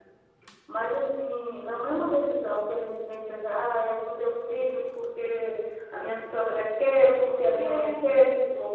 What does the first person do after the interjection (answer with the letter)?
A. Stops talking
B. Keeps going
B